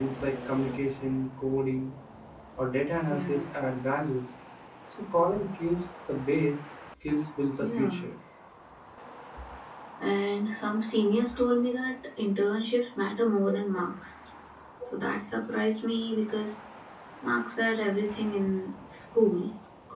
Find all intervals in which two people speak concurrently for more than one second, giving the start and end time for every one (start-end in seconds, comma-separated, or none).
none